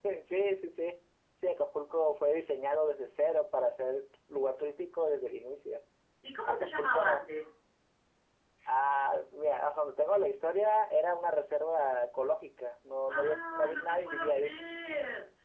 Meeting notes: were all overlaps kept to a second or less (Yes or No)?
No